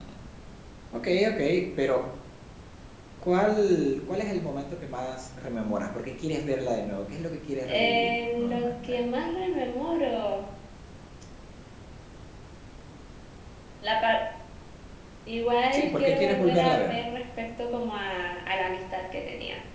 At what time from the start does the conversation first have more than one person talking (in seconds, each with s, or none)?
7.6 s